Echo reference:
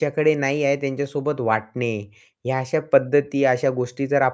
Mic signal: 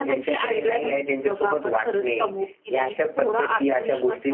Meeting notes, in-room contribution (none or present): present